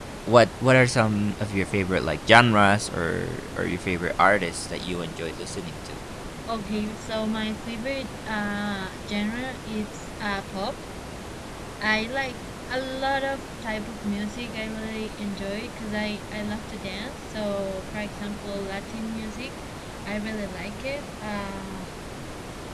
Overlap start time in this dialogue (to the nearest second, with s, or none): none